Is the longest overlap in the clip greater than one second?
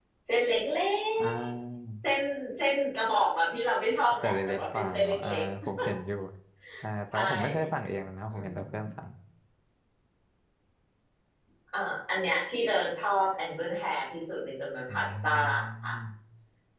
Yes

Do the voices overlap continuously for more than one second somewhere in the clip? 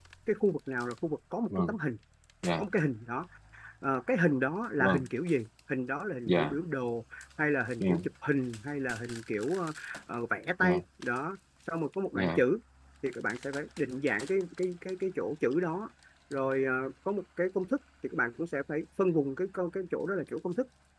No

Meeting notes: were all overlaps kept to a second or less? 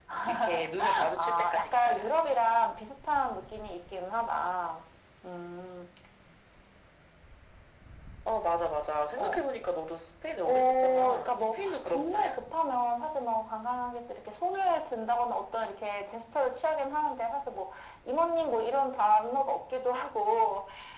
No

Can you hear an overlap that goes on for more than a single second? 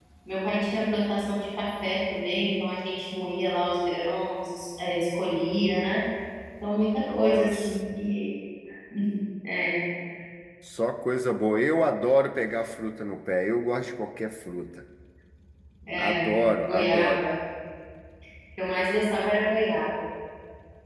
Yes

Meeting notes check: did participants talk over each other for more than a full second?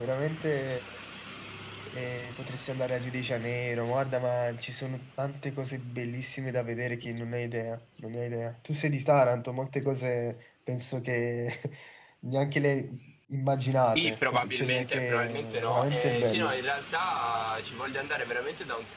Yes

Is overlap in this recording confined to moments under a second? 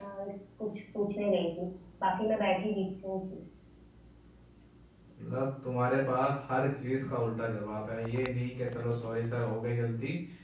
Yes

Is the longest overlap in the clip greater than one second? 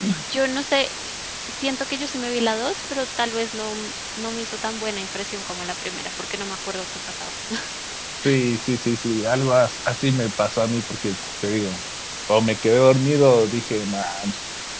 No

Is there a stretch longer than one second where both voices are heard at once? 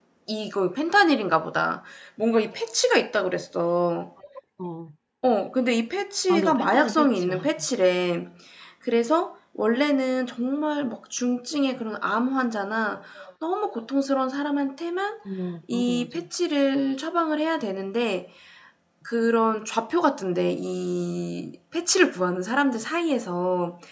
Yes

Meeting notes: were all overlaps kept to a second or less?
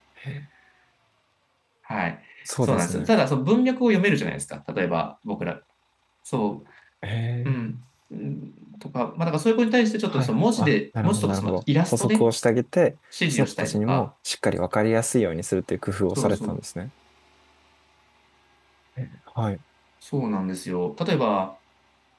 No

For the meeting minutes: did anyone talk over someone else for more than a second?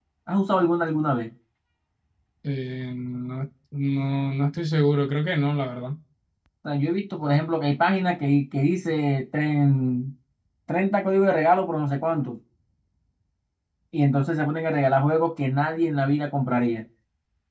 No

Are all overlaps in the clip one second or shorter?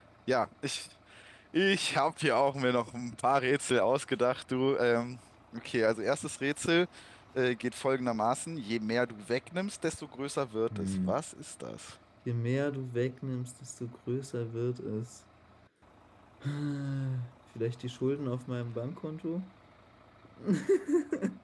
Yes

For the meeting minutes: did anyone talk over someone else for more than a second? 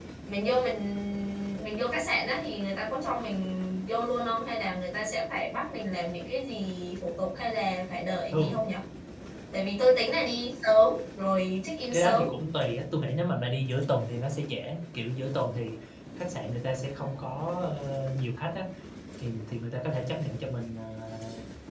No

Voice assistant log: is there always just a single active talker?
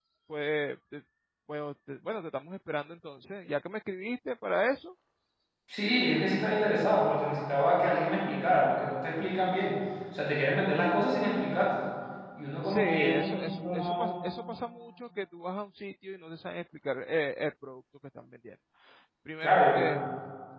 No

